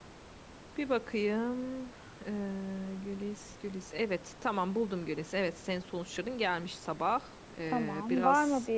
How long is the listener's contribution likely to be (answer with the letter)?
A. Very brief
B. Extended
B